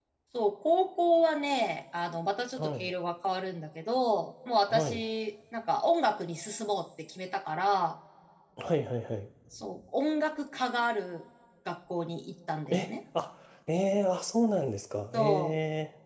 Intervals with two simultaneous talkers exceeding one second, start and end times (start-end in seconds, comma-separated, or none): none